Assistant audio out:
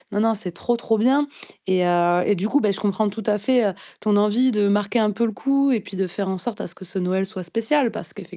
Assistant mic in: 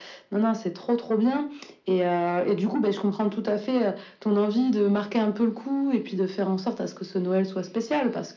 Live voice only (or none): none